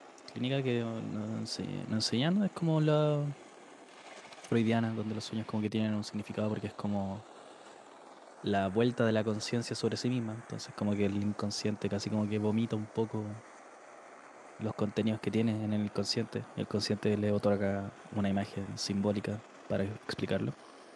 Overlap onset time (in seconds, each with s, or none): none